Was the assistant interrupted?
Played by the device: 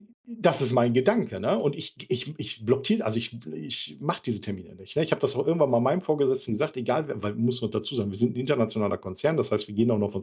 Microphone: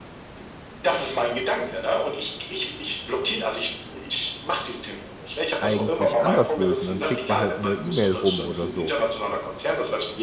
Yes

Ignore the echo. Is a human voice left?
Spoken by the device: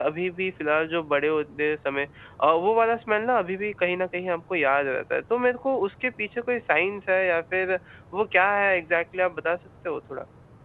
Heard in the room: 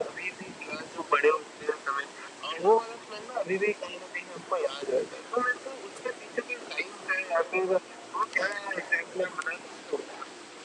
No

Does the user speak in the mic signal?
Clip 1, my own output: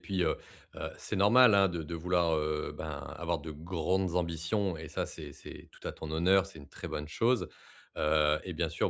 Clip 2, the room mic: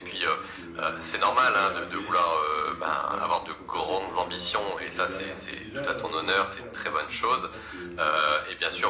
Yes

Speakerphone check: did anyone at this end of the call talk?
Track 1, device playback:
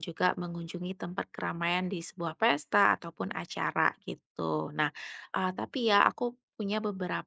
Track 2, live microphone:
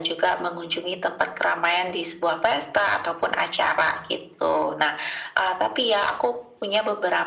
No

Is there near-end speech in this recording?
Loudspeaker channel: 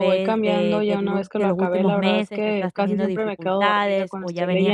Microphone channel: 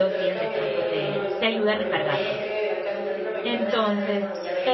Yes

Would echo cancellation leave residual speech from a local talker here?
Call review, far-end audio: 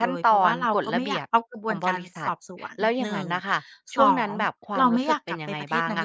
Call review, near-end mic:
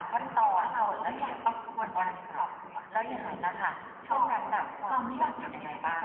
No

